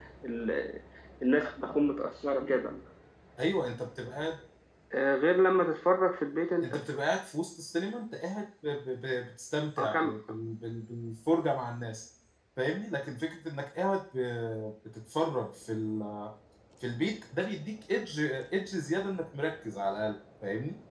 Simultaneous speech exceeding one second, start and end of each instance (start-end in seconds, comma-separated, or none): none